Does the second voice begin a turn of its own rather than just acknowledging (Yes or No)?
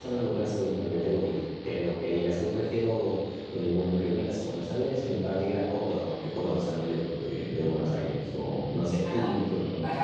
Yes